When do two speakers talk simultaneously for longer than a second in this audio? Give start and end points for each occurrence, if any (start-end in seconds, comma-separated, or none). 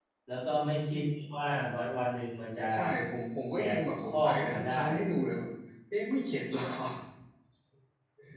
3.5-5.1